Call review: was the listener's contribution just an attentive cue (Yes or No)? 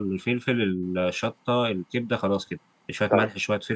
Yes